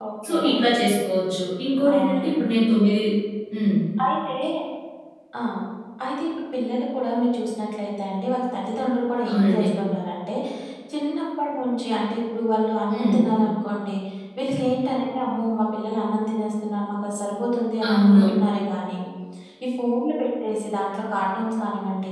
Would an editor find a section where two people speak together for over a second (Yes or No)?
No